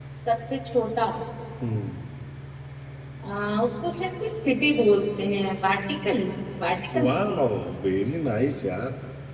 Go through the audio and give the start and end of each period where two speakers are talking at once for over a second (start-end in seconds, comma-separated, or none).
none